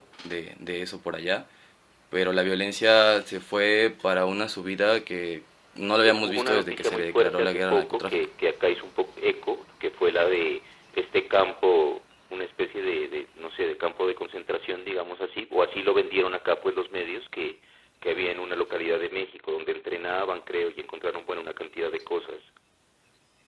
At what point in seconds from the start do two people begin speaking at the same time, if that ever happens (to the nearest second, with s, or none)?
6 s